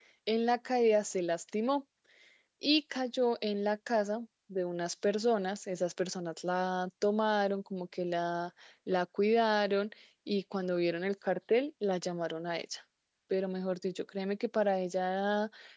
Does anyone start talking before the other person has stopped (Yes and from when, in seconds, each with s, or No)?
No